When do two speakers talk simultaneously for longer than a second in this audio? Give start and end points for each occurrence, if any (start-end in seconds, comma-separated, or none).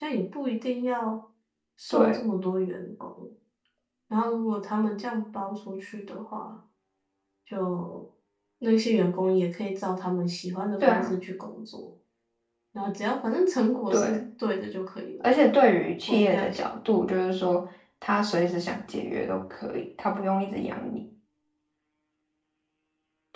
none